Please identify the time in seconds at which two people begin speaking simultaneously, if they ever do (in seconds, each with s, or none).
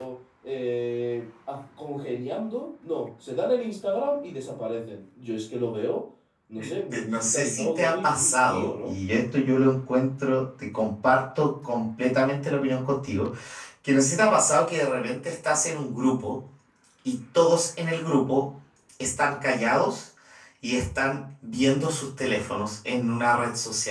6.9 s